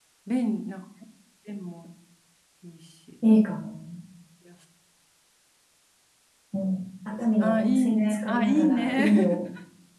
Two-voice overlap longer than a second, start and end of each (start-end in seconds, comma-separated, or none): 7.4-9.1